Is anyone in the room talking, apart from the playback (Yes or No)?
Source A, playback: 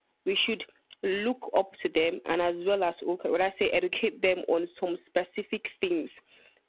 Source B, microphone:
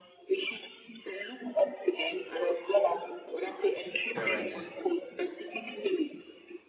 Yes